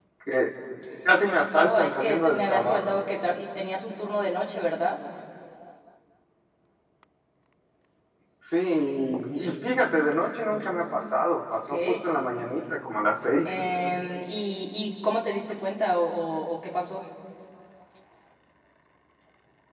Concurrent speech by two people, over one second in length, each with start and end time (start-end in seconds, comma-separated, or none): 1.5-3.0